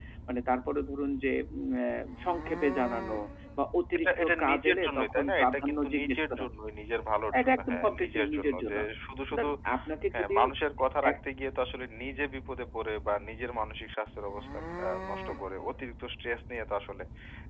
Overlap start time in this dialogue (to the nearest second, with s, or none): 4 s